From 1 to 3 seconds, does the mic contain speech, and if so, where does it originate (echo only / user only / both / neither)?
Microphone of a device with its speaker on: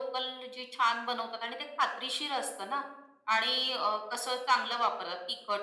echo only